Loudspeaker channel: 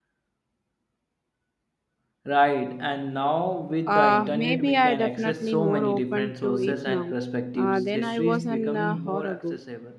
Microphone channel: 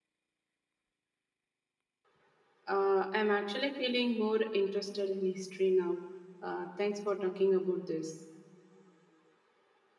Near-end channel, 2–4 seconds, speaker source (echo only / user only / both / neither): user only